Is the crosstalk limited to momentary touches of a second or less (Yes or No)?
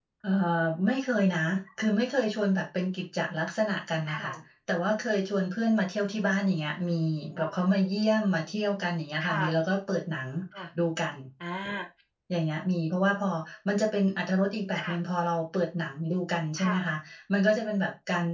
Yes